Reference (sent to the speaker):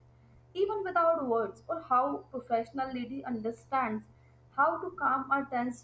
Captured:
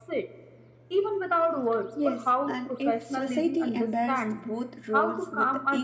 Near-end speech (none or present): present